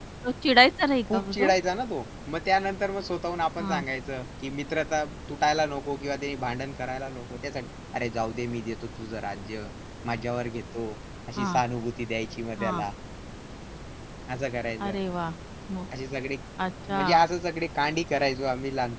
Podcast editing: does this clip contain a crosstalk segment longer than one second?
No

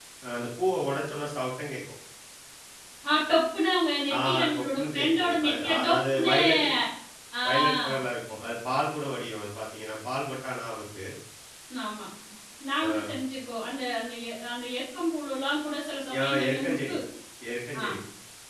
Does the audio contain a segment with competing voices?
Yes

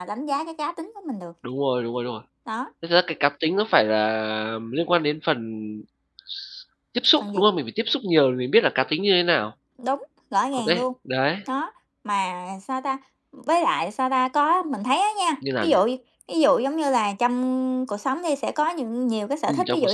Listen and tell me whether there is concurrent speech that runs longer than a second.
No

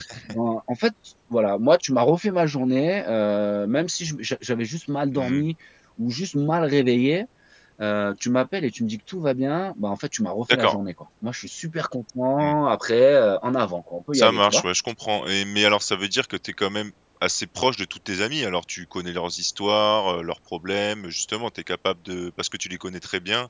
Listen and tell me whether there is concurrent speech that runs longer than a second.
No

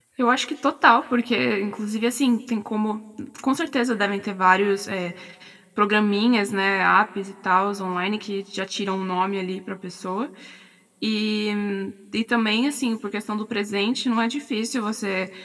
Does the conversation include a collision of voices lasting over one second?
No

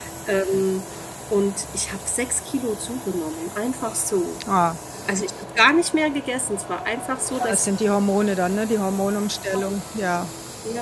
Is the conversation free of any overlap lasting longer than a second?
Yes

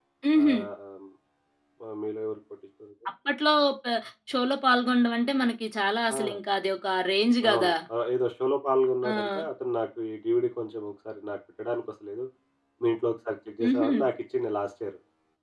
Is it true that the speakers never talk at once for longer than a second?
Yes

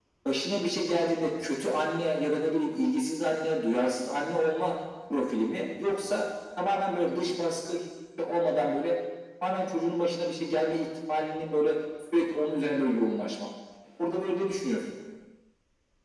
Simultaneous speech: No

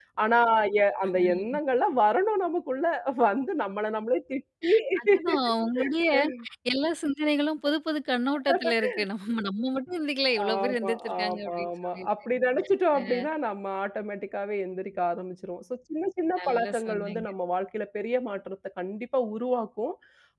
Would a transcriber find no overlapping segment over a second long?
No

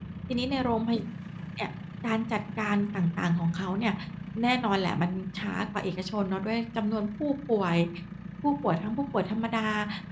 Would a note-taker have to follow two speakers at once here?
No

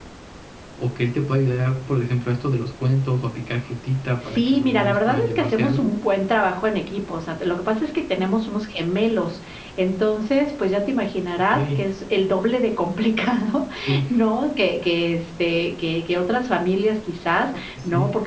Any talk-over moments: Yes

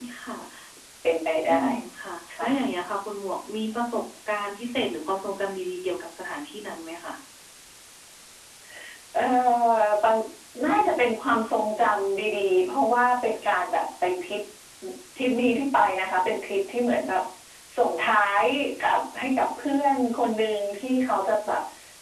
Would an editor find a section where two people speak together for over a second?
No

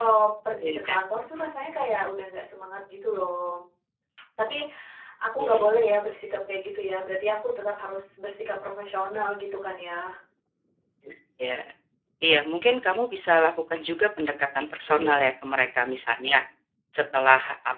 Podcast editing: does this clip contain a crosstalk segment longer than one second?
No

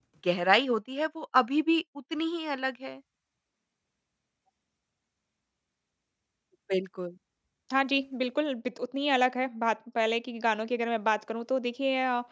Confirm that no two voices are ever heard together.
Yes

